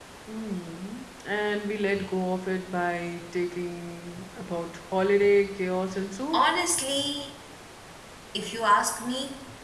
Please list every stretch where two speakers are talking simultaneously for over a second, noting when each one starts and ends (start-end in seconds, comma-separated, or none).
none